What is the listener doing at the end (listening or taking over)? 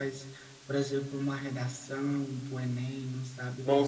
taking over